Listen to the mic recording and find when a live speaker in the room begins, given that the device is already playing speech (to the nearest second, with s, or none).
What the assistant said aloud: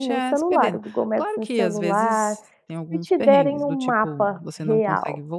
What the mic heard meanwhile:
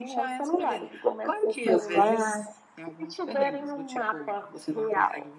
none